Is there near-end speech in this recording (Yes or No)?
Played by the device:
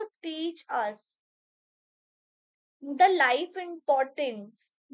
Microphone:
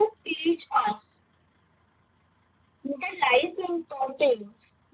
No